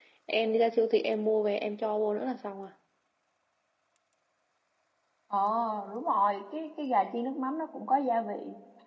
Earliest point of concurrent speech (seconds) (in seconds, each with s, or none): none